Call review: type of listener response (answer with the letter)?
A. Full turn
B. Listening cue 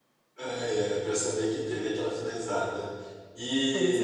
B